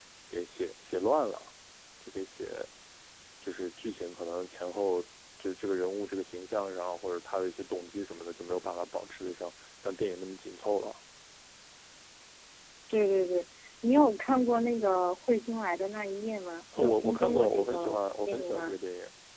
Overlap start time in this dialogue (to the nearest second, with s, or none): 17 s